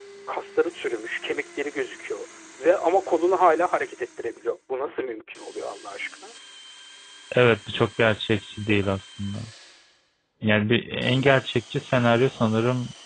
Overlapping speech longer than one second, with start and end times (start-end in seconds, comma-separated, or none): none